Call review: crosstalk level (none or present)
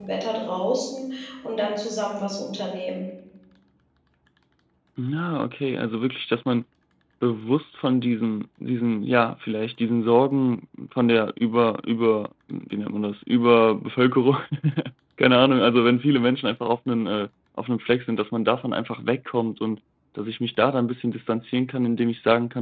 none